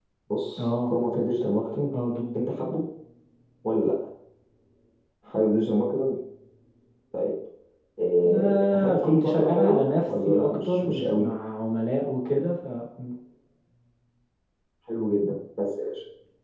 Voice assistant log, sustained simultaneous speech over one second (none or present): present